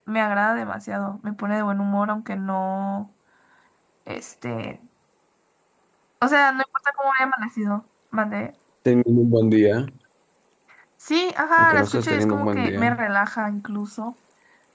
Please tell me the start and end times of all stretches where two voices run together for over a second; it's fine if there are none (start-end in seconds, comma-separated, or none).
11.6-13.0